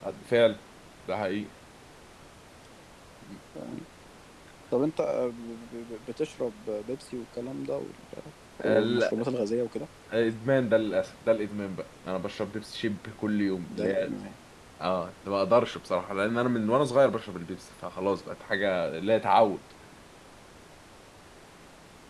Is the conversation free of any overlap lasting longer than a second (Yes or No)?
Yes